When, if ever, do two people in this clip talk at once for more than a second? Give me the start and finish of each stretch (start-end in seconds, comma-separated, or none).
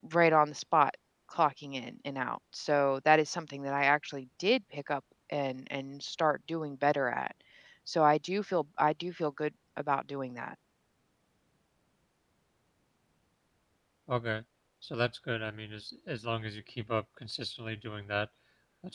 none